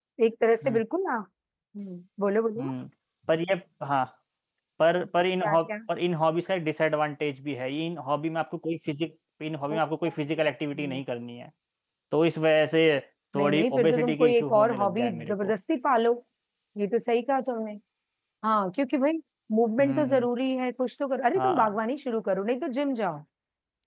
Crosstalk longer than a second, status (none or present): present